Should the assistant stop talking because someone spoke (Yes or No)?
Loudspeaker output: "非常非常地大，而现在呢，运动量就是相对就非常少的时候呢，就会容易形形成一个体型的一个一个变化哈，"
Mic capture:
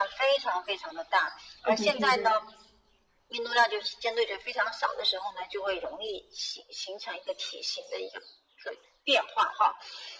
Yes